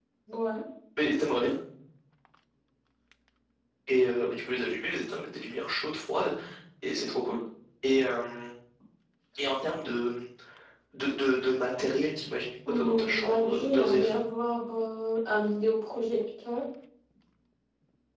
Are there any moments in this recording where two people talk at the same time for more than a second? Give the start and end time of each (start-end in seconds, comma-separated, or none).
12.7-14.2